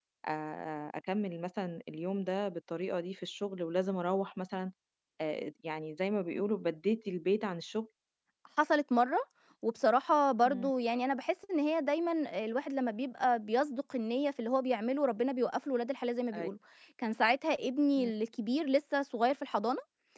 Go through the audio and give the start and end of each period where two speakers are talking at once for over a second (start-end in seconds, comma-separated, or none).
none